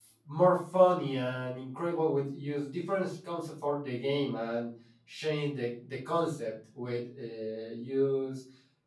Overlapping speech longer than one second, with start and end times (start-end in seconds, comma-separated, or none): none